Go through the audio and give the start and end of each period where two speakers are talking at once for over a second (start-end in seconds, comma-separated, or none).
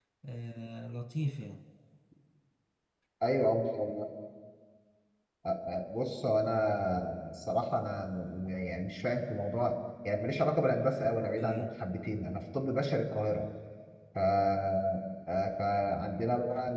none